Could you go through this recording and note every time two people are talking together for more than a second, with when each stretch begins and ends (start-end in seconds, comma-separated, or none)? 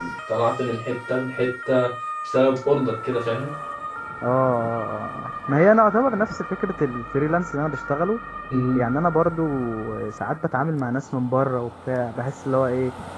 none